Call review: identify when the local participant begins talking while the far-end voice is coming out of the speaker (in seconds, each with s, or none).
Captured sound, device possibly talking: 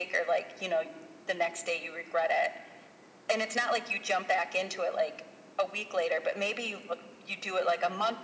none